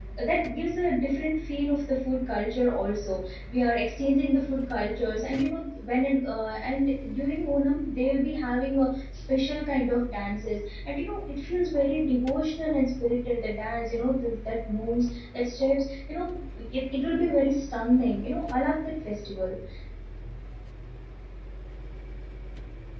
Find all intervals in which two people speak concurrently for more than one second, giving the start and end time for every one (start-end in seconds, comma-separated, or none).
none